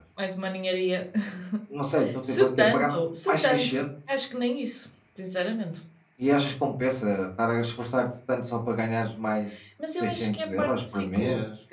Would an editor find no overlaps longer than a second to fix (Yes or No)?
No